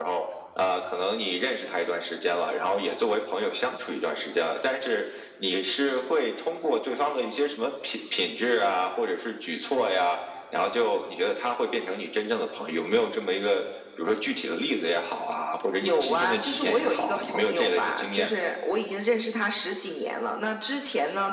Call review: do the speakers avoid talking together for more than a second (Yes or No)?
No